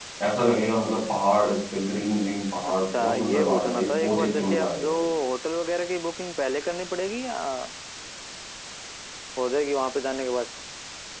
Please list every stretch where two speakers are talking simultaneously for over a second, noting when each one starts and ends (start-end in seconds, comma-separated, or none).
2.7-4.9